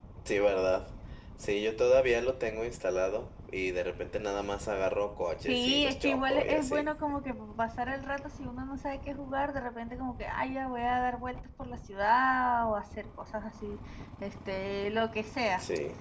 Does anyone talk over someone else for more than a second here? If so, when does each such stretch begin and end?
5.5-6.8

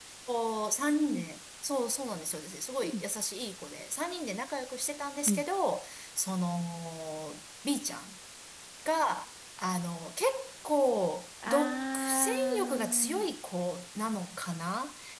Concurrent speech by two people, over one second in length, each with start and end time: 11.5-13.3

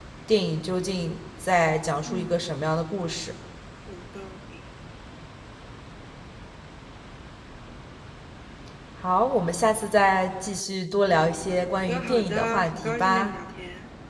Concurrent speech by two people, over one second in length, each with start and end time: 11.9-13.3

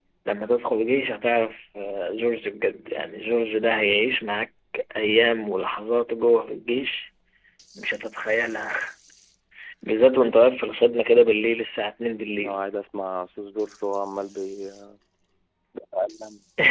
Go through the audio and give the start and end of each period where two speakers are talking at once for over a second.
none

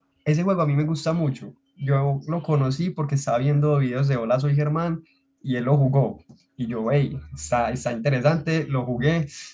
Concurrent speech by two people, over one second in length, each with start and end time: none

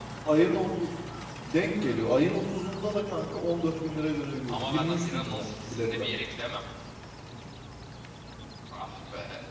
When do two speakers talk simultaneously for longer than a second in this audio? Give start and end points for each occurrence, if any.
4.5-6.1

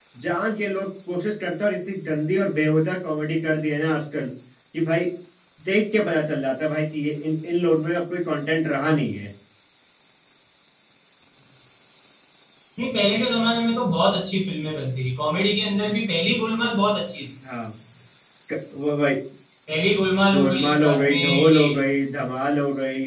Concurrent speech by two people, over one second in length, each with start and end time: 20.3-21.6

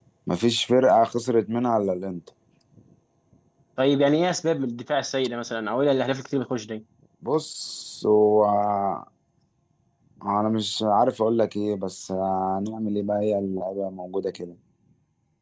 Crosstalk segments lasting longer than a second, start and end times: none

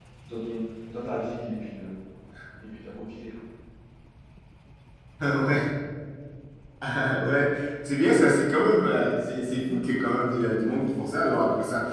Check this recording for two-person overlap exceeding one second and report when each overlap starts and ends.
none

